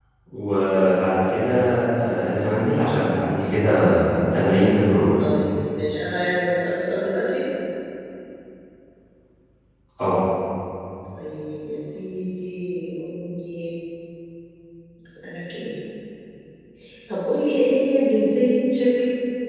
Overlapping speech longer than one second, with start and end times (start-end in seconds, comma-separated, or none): none